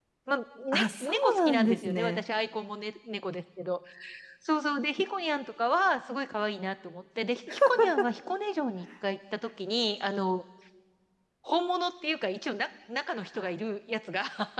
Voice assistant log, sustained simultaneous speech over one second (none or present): present